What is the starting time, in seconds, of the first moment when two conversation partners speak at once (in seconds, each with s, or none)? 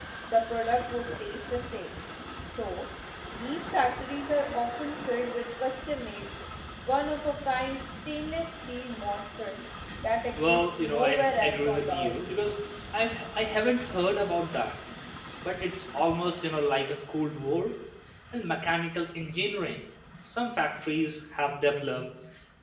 10.4 s